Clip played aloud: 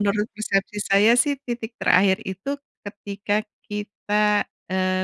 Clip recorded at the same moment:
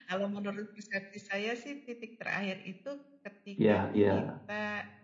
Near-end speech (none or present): present